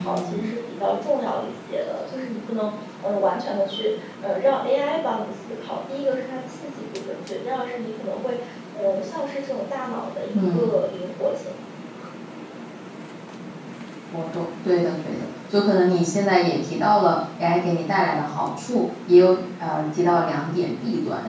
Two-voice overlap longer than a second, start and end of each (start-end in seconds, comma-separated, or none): none